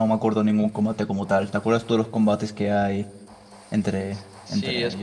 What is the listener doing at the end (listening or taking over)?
taking over